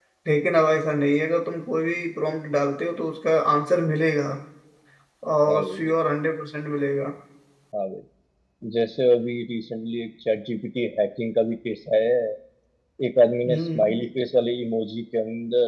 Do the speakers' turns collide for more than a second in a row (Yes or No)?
No